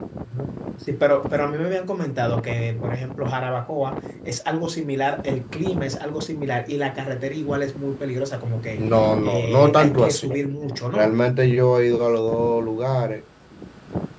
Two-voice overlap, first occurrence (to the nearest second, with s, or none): 9 s